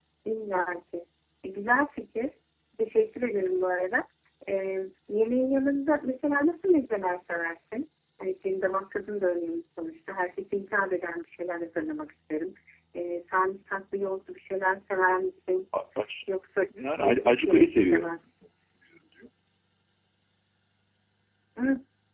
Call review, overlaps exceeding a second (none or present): present